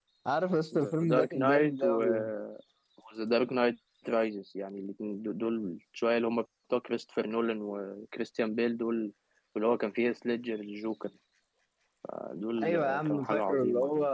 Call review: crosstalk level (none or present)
present